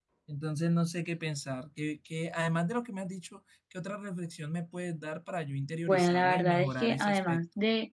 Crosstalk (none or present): present